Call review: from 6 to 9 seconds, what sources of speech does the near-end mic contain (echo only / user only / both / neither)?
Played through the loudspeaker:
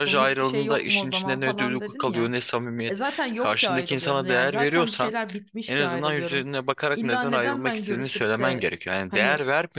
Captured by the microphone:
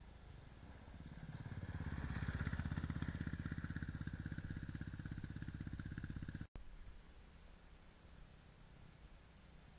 neither